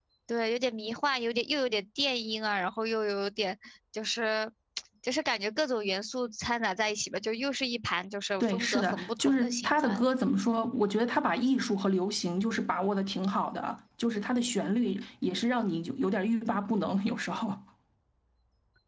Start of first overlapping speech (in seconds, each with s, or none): 8.4 s